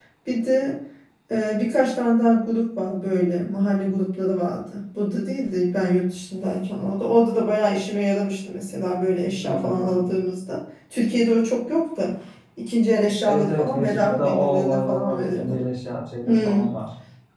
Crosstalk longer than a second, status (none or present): present